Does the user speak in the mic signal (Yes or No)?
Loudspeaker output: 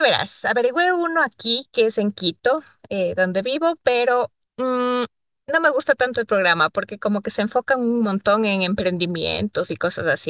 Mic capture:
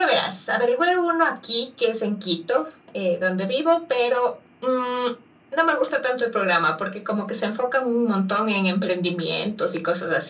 No